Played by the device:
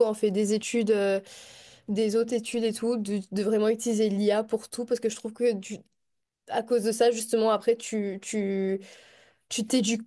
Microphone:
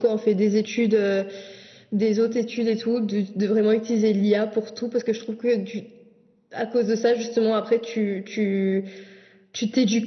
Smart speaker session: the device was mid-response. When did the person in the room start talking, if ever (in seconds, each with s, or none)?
none